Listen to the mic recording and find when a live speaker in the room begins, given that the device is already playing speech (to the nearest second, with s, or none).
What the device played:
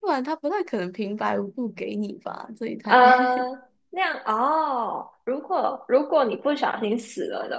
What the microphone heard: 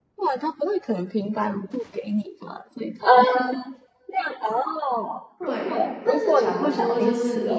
5 s